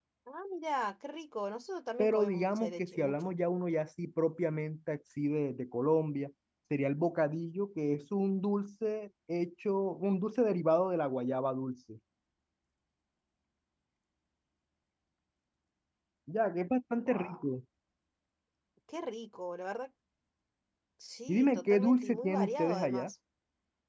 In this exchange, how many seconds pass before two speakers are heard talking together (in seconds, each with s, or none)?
2.0 s